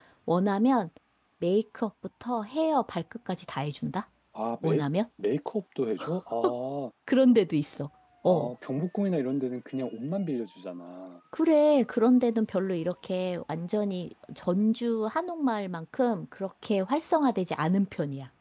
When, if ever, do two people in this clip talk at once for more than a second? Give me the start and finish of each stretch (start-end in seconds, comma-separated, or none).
none